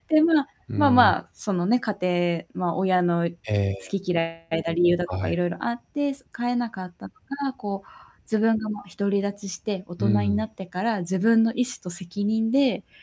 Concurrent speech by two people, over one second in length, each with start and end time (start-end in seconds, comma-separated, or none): none